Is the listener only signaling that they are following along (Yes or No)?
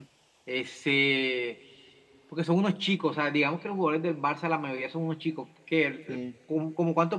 Yes